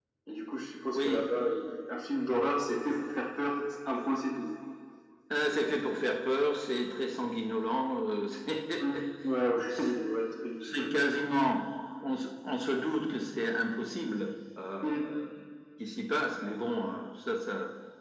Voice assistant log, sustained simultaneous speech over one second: none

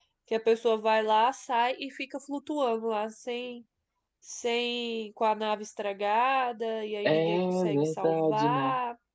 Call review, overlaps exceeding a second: present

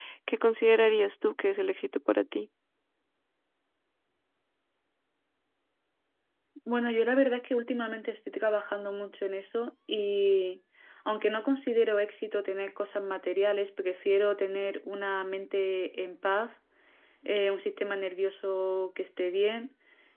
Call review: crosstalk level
none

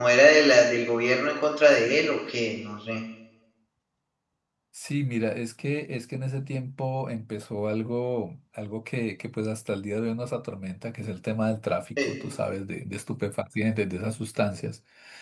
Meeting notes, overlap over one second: none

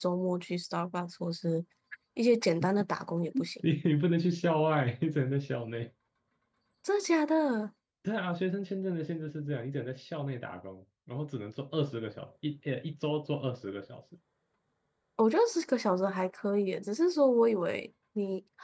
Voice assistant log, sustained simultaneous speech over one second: none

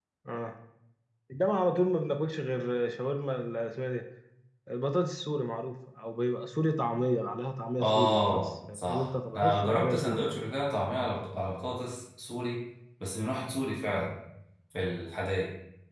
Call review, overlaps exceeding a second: present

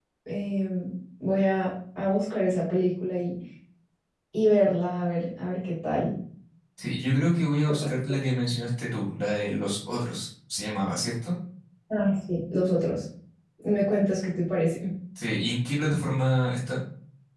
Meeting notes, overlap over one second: none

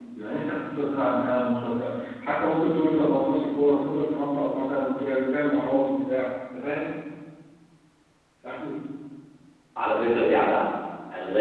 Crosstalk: none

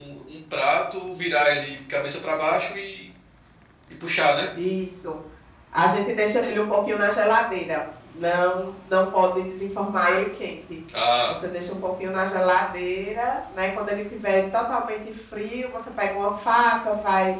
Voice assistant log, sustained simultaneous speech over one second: none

